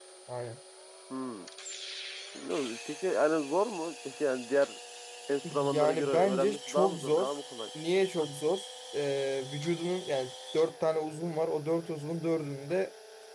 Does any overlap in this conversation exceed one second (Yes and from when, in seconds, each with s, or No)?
Yes, from 5.5 s